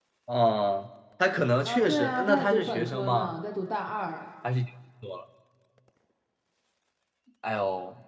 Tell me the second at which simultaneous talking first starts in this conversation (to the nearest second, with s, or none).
2 s